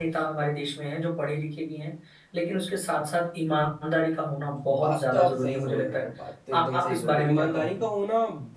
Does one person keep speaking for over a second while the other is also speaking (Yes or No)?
Yes